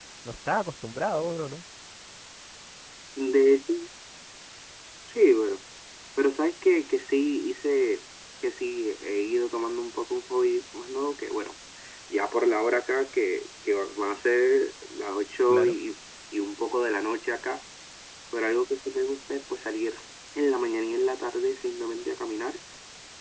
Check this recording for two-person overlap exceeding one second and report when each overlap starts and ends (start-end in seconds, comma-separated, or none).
none